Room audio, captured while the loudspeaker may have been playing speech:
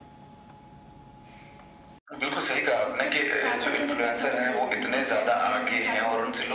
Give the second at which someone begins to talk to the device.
2.9 s

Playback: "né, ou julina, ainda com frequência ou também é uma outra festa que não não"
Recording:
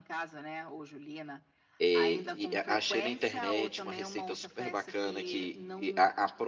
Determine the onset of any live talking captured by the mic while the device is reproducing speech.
1.8 s

